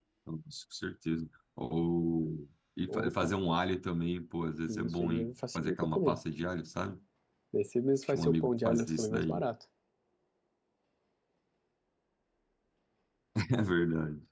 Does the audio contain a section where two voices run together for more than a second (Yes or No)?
Yes